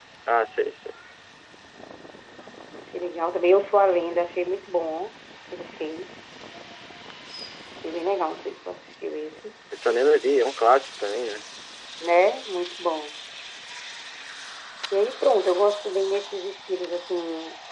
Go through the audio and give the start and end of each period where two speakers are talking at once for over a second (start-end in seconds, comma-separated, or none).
none